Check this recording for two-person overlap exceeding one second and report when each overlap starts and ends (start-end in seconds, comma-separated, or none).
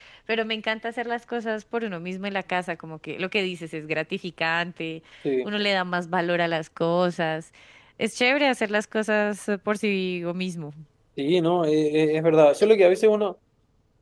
none